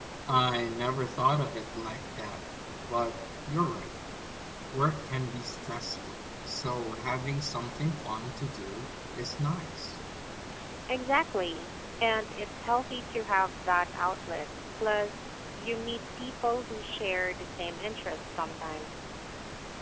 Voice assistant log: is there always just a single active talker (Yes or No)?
Yes